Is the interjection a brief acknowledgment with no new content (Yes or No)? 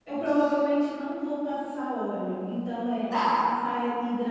Yes